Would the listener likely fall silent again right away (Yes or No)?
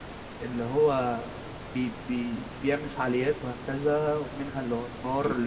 Yes